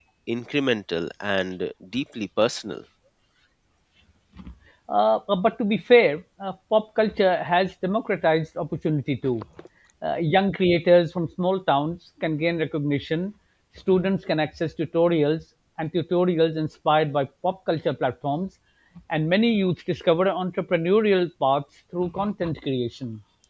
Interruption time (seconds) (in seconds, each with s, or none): none